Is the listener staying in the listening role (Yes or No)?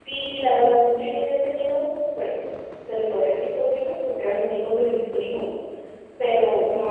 Yes